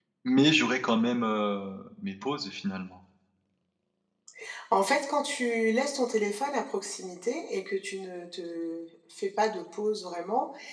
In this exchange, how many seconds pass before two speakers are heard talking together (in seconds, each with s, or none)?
none